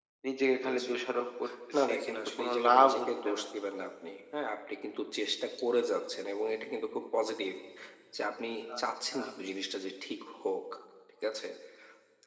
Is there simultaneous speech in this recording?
Yes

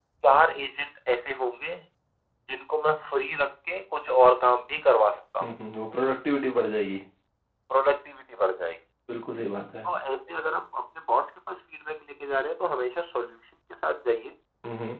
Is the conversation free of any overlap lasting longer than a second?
Yes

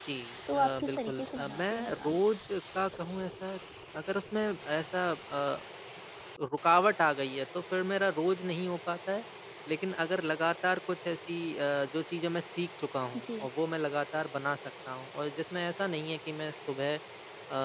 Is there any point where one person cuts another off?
Yes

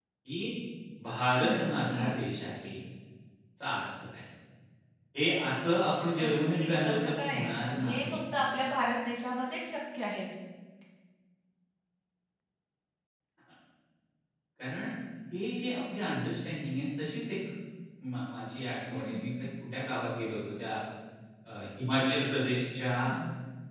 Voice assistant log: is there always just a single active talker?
No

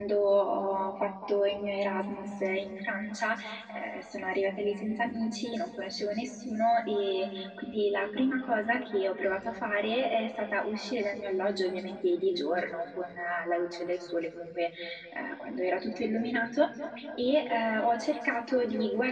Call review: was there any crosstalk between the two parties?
No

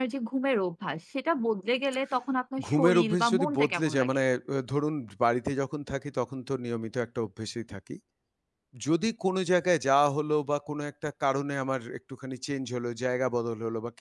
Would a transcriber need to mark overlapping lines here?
Yes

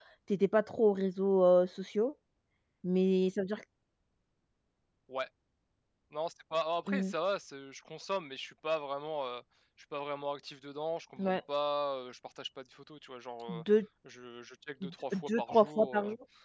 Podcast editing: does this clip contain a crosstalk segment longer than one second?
Yes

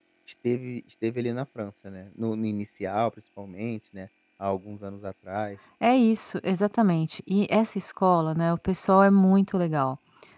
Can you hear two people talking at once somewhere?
No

